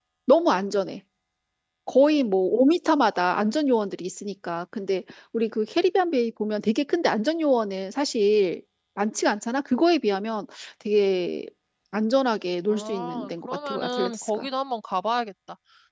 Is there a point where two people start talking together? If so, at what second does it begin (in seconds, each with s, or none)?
12.7 s